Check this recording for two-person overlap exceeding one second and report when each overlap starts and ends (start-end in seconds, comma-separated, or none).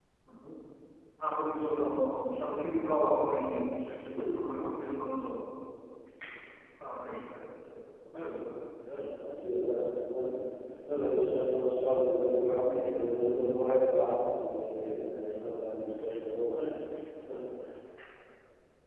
none